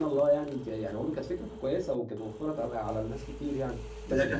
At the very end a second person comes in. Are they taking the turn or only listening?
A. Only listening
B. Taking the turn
B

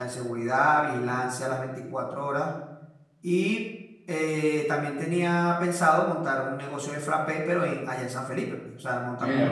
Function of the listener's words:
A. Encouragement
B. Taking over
B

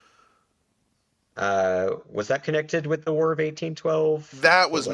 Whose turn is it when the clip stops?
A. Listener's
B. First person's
A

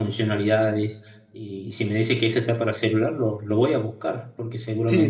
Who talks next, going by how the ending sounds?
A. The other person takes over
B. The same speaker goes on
A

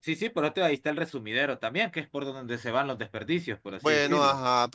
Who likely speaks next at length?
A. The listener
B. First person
A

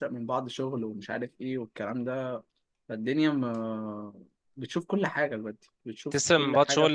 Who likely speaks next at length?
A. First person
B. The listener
B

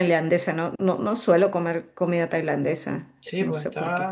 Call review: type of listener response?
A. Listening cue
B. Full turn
B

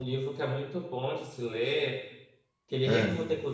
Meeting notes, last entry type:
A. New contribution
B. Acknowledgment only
B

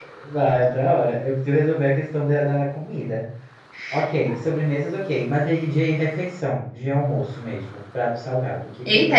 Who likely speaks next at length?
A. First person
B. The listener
B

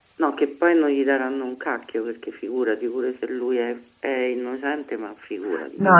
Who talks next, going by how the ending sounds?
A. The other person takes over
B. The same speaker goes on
A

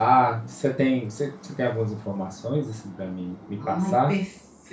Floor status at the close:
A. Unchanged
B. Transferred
B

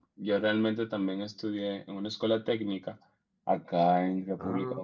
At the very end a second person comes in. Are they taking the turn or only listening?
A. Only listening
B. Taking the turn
A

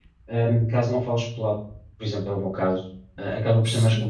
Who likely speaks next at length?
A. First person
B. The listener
A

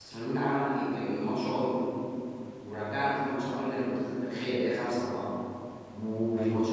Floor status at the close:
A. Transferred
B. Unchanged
B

